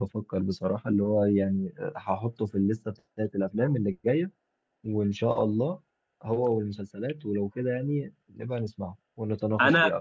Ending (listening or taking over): taking over